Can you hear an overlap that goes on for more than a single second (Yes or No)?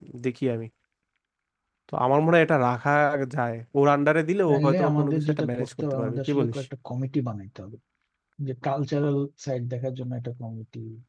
Yes